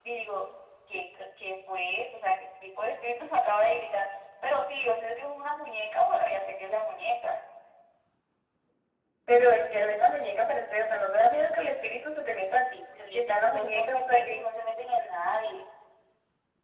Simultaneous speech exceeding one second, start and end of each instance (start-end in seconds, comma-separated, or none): 13.1-14.4